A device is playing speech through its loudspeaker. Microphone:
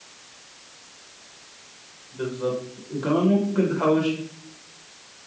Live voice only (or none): بالضبط، وكمان ممكن تحوّشي.